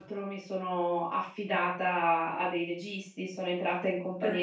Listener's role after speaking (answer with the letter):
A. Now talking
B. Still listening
B